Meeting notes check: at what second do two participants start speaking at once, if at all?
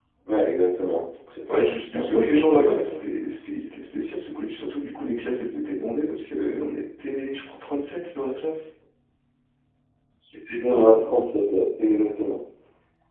1 s

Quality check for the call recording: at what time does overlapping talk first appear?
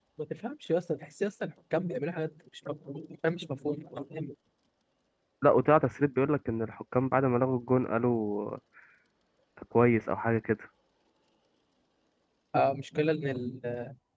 none

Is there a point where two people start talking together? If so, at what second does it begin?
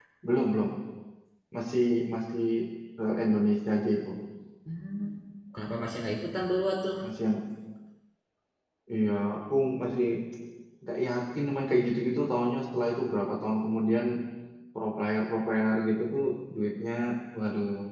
none

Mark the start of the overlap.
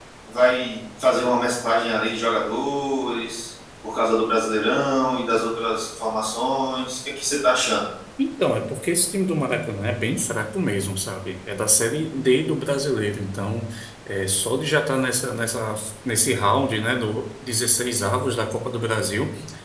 none

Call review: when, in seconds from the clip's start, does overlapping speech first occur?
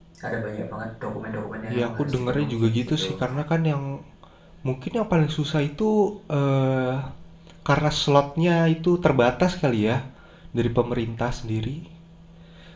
2 s

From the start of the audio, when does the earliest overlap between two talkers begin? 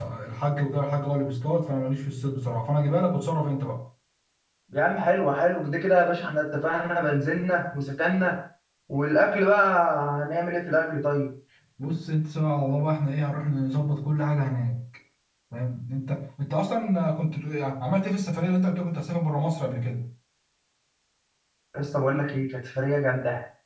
none

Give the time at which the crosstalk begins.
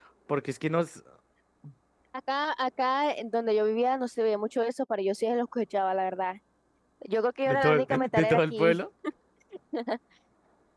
7 s

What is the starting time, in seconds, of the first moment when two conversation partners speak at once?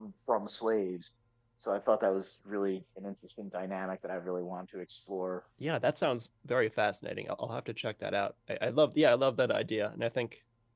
none

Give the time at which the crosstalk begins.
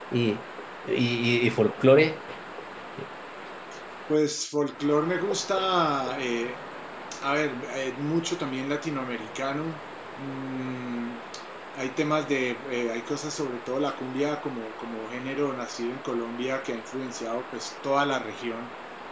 none

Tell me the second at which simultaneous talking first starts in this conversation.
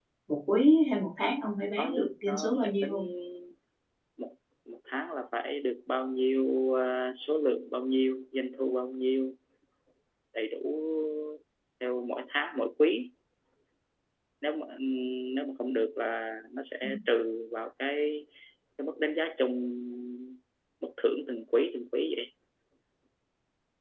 2 s

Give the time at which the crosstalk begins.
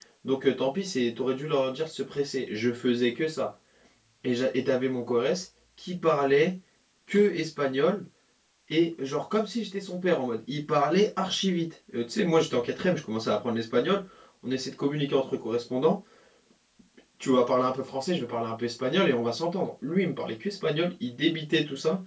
none

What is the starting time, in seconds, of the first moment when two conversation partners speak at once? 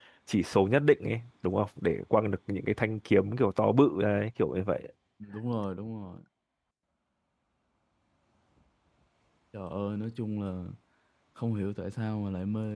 none

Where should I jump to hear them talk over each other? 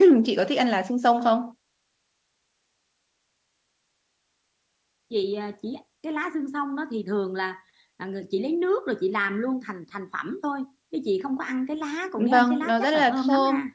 12 s

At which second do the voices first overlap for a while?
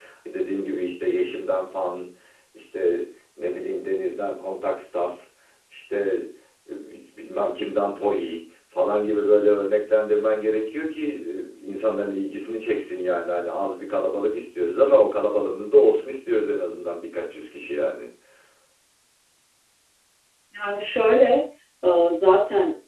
none

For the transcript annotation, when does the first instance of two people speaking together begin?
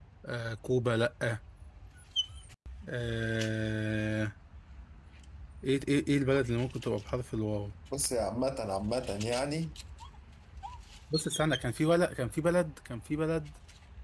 none

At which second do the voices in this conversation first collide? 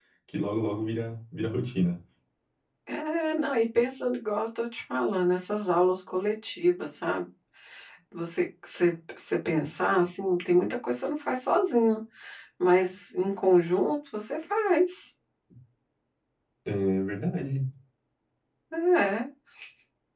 none

